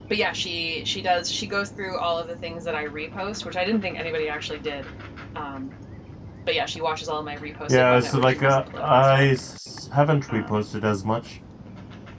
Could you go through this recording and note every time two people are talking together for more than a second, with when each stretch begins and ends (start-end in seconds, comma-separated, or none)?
7.7-9.3